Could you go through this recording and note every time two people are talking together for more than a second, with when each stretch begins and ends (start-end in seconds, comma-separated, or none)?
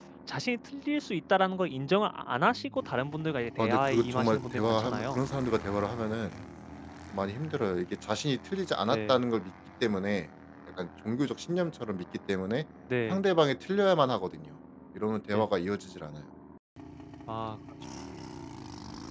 3.6-5.2